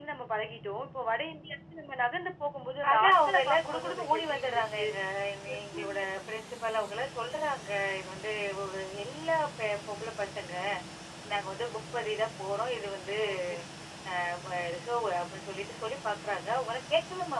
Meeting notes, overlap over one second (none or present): present